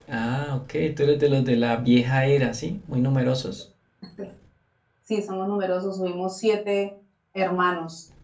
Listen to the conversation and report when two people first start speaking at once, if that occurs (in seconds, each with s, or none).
none